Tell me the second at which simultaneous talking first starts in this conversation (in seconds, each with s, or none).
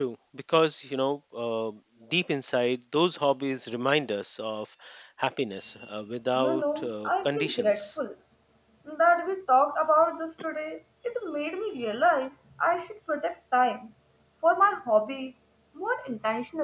6.3 s